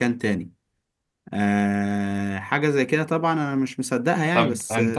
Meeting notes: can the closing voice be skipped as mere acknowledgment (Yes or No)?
No